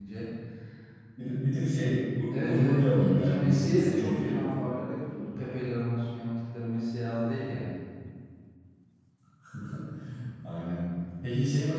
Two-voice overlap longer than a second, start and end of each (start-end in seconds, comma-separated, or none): 2.3-4.4